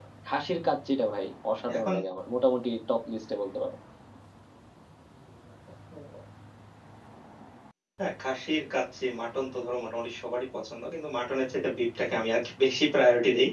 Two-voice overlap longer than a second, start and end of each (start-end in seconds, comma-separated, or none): none